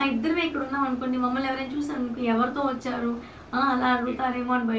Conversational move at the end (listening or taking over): listening